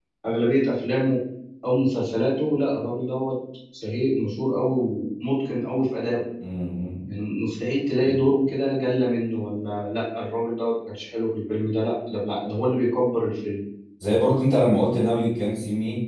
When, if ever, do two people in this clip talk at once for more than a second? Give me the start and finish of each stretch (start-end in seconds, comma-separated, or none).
none